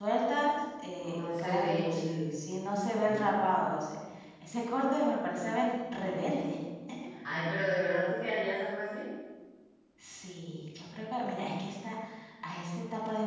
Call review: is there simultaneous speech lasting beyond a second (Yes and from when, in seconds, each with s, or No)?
Yes, from 1.0 s